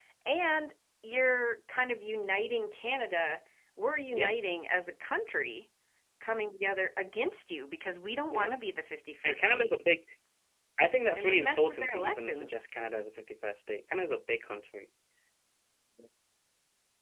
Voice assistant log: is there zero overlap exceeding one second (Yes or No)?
No